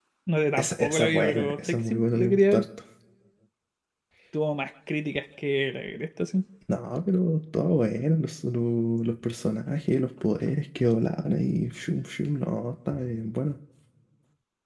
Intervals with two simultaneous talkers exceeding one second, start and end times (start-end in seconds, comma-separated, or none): 0.6-2.6